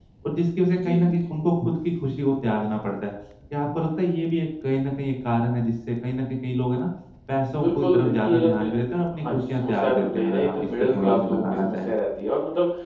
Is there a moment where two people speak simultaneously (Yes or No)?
Yes